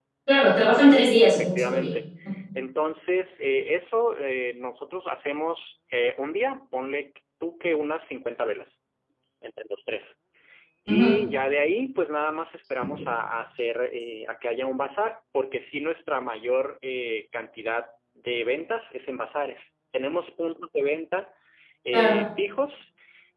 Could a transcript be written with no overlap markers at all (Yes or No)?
No